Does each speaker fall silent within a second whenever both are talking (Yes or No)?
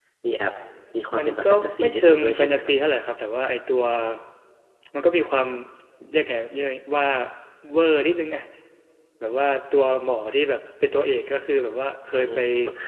No